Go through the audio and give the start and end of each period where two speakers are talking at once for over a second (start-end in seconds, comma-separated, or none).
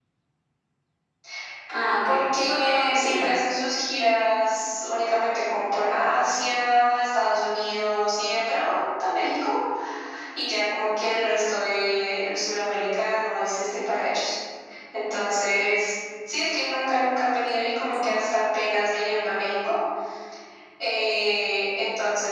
2.0-3.3